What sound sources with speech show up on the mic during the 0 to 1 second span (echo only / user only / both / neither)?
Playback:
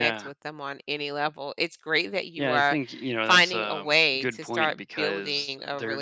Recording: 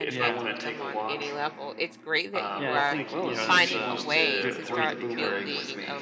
both